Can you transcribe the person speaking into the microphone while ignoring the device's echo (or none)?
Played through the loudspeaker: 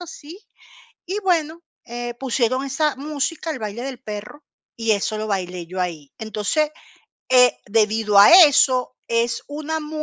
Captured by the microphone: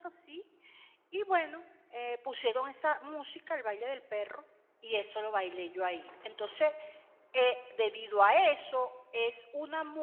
none